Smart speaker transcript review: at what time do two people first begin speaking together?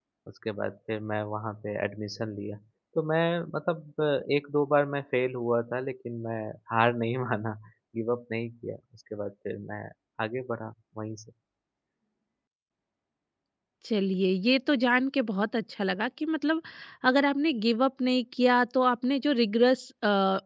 none

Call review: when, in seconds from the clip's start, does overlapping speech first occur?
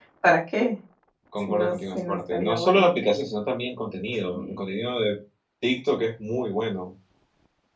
1.5 s

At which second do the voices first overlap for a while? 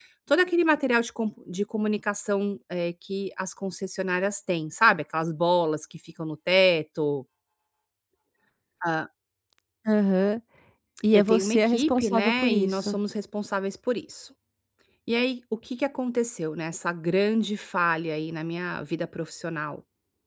11.1 s

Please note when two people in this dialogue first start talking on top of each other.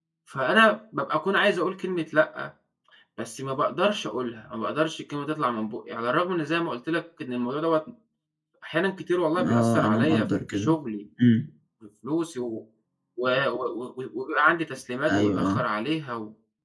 9.4 s

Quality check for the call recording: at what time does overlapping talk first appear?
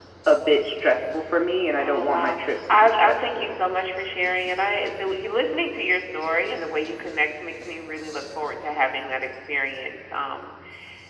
1.7 s

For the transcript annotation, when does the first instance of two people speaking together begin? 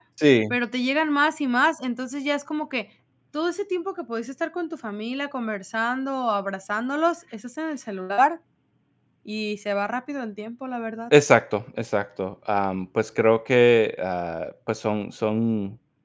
none

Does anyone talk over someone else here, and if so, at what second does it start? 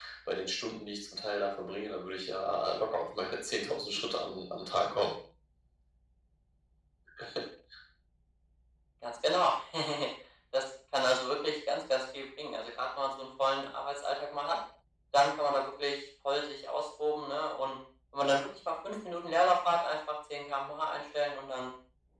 none

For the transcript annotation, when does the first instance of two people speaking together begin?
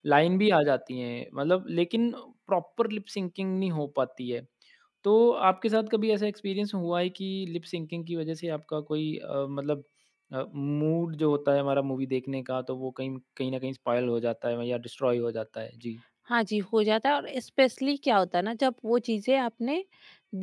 none

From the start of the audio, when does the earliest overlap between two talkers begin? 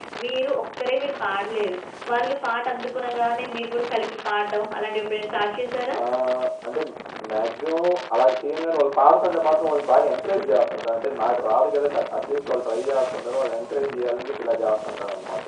none

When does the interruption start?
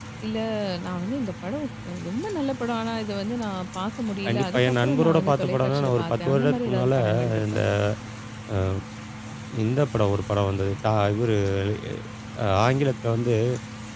4.2 s

